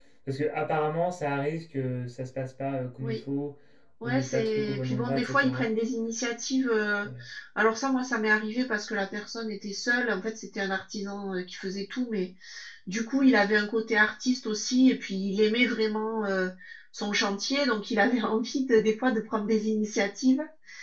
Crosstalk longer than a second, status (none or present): present